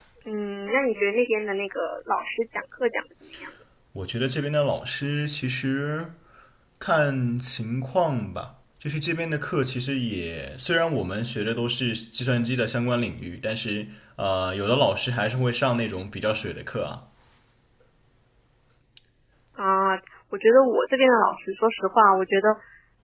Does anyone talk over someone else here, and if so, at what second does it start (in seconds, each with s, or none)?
none